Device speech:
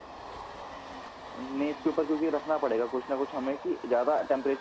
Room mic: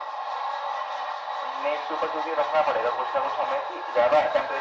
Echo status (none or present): present